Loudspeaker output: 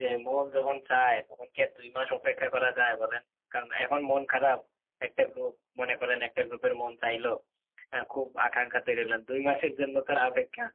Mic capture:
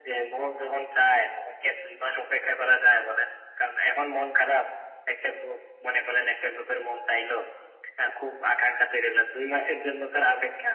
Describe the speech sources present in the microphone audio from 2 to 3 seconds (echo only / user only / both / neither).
echo only